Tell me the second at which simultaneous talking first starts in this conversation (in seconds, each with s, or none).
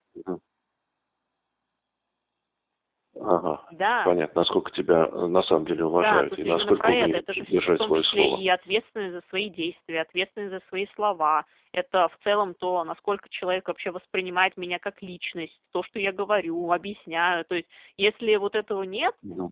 6.0 s